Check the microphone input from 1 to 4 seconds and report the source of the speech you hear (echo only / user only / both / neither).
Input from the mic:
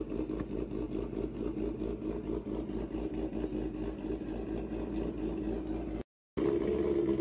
neither